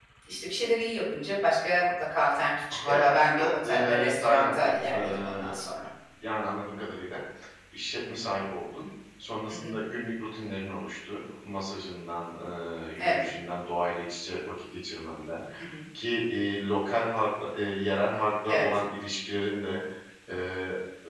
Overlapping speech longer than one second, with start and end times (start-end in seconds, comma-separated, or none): 2.8-5.5